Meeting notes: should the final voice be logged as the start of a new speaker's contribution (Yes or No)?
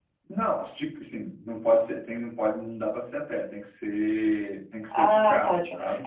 Yes